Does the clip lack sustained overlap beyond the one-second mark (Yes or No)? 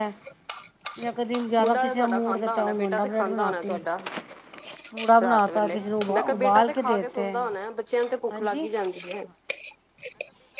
No